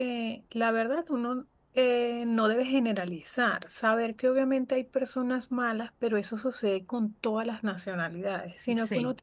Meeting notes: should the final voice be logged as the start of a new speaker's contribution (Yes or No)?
No